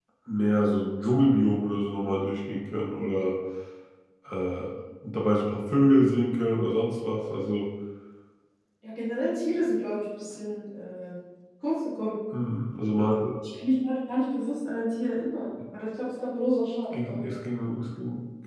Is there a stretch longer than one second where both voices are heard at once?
No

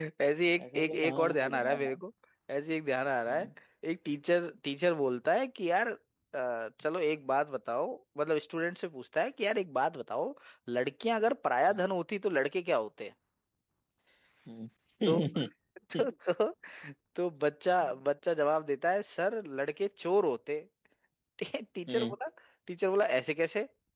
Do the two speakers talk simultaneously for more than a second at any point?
Yes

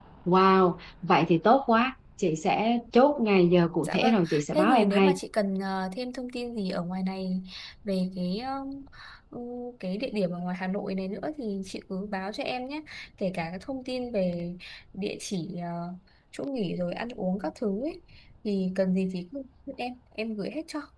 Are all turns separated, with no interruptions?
No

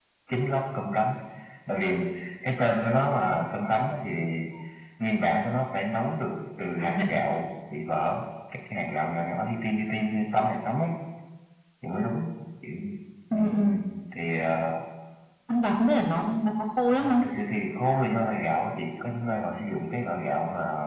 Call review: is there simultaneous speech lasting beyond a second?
No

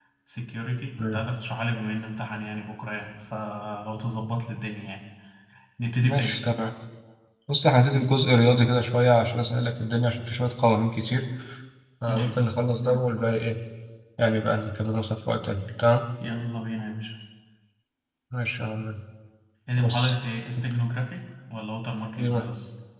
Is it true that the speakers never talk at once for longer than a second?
Yes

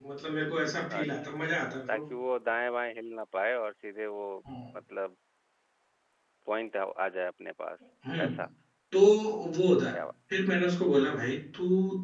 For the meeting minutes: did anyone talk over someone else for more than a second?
No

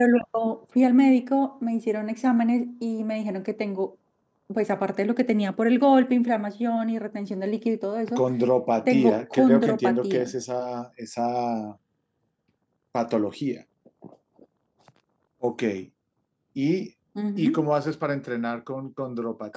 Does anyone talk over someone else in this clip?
Yes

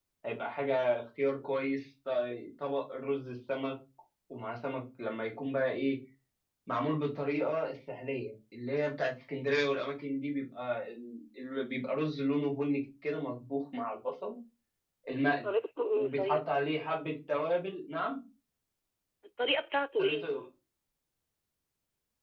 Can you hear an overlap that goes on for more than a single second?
No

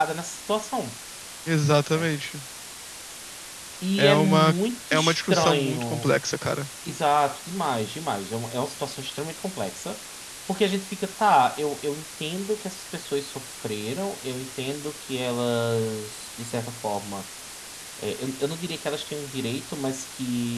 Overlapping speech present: Yes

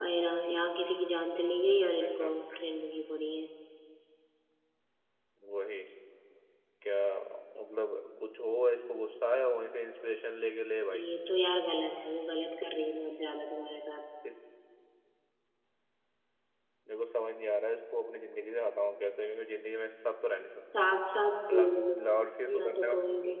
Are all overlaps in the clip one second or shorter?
Yes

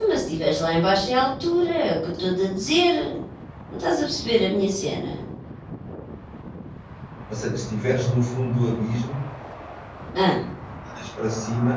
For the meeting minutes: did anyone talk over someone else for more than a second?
No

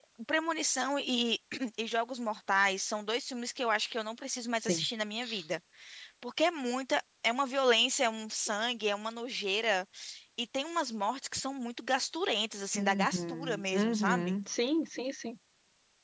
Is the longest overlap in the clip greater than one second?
Yes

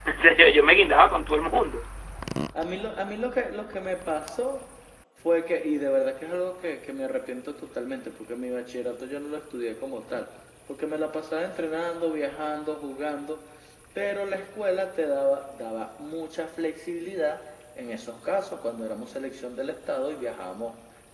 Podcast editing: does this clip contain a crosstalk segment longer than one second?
No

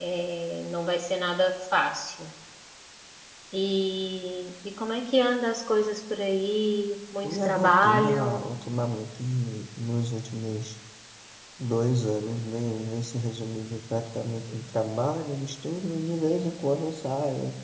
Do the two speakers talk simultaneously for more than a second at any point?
Yes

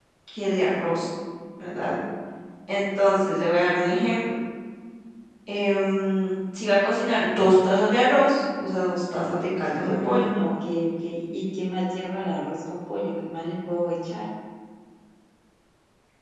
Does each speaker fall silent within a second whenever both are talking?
Yes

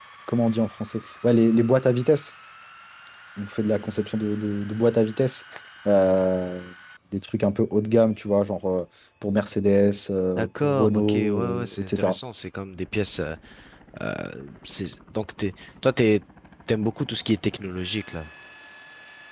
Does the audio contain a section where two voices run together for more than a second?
Yes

